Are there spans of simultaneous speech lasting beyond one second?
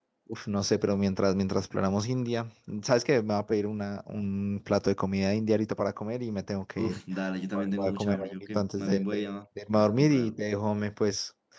Yes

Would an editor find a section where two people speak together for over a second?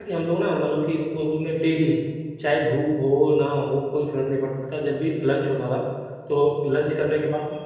No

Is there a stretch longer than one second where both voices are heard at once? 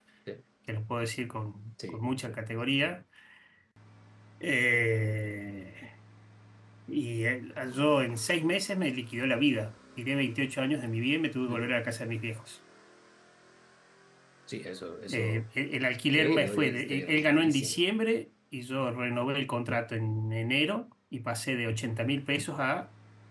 Yes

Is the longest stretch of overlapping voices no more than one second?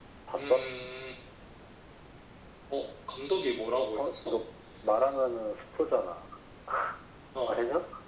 Yes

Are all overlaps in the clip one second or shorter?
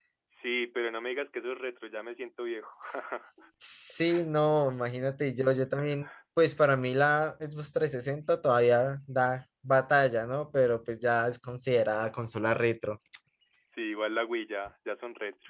Yes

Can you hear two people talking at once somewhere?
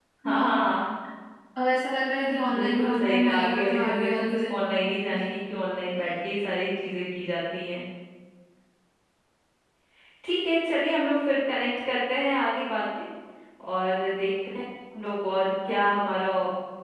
Yes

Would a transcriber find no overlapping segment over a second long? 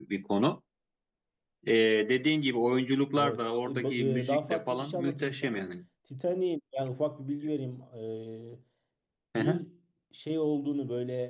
No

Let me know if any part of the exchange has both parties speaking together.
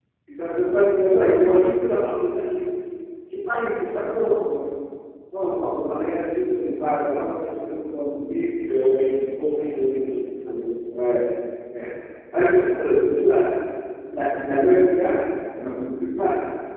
No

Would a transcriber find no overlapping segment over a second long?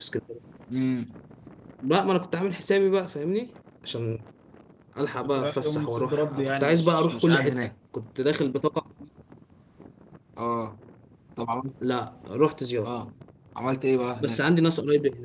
No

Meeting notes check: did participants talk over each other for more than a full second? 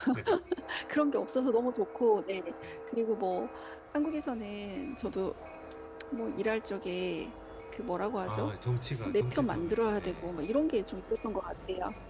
Yes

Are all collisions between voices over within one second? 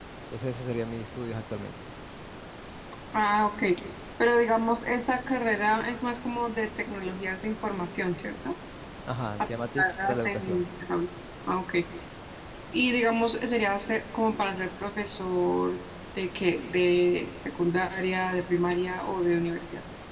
No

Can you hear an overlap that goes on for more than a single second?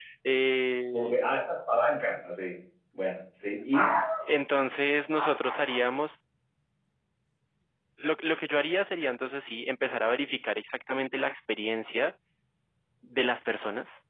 No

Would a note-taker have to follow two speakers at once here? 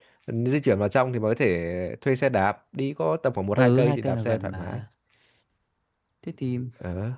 Yes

